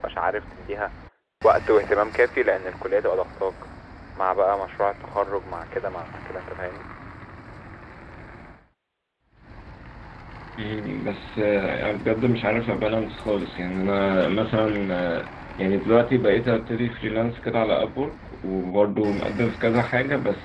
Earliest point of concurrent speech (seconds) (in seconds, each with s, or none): none